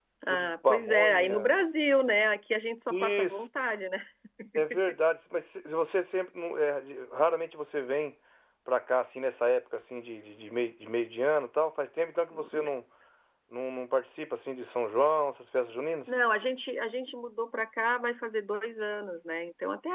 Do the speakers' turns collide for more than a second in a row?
Yes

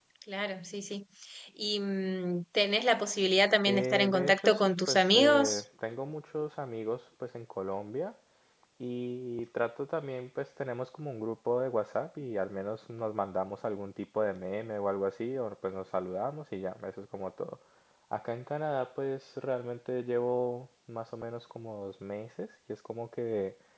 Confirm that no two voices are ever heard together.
No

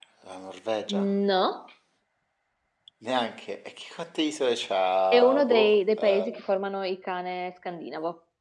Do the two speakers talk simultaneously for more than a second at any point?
Yes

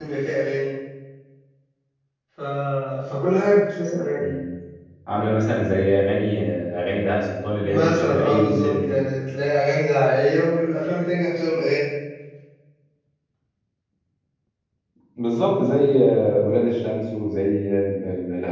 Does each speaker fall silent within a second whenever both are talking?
No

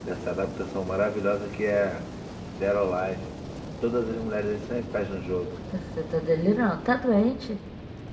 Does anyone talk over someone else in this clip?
No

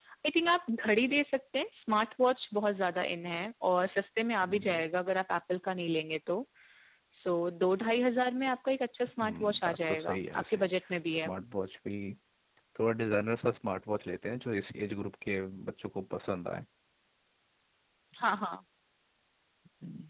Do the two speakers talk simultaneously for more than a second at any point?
Yes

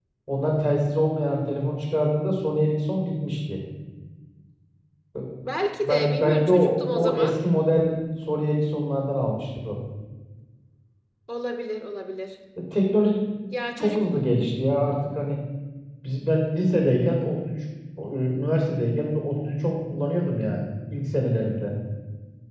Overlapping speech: Yes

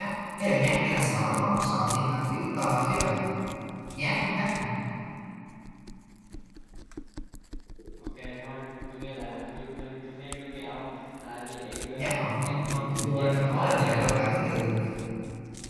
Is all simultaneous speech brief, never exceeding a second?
No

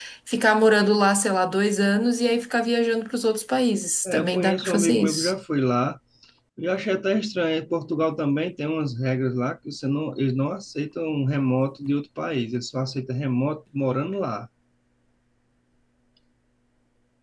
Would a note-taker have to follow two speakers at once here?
Yes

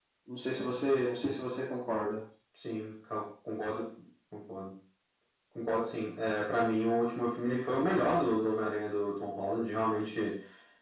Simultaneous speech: No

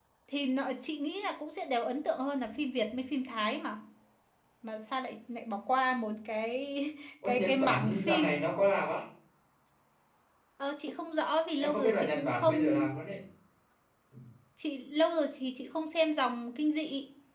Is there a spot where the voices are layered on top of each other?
Yes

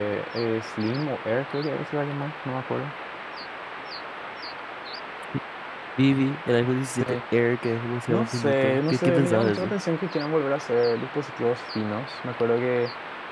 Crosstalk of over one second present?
Yes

